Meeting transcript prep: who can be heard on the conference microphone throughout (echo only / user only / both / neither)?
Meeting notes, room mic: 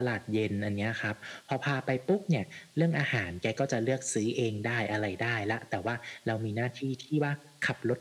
echo only